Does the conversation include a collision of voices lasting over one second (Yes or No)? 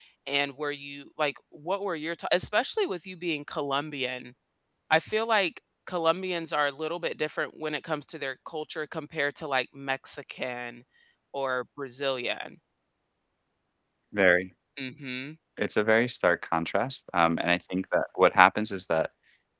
No